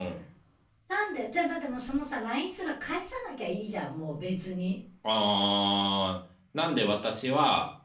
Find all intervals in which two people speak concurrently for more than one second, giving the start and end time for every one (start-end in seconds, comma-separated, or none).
none